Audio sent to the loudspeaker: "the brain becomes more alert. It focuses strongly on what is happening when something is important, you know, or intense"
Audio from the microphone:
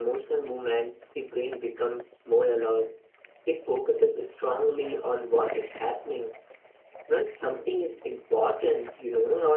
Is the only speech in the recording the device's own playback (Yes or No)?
Yes